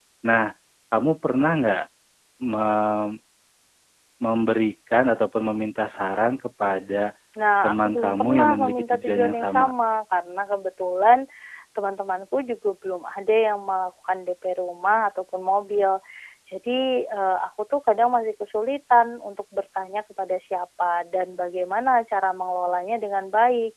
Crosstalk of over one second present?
Yes, from 7.6 s

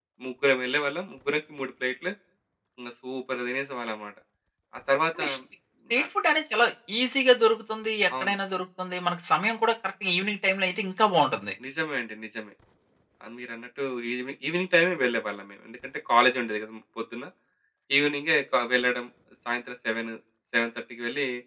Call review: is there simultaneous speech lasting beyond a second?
No

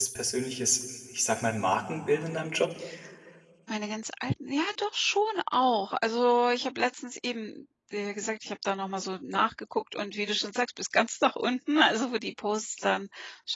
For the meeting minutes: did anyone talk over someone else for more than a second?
No

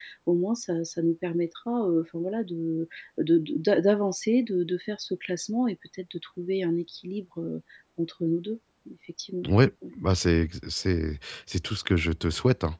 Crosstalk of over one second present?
No

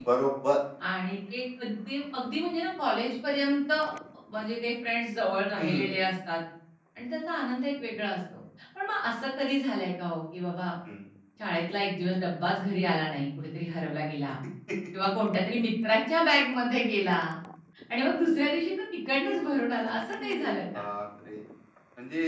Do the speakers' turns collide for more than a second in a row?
No

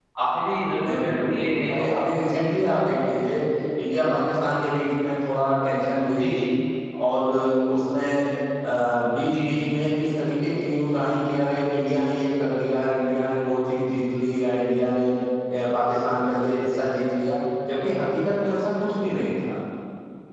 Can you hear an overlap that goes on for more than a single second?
Yes, from 0.8 s

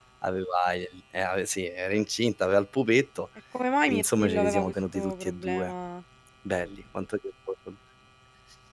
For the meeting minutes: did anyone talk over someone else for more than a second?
Yes, from 3.9 s

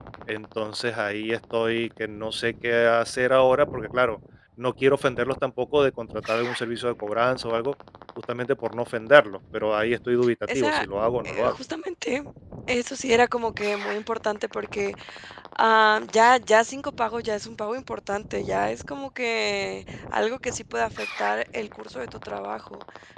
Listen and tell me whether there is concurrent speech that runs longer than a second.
No

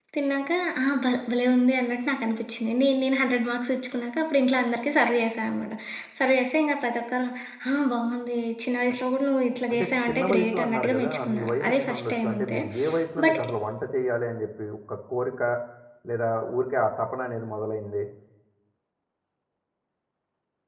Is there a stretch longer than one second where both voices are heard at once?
Yes, from 9.7 s

